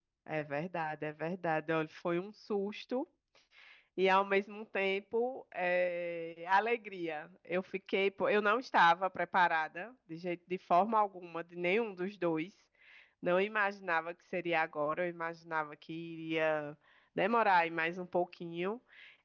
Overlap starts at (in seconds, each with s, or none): none